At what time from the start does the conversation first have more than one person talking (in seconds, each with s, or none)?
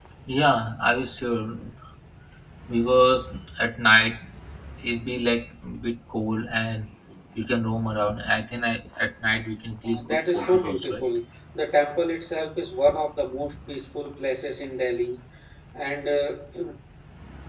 9.8 s